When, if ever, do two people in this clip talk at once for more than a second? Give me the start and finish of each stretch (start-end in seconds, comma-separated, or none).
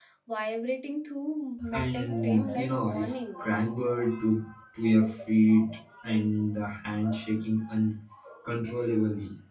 1.8-3.4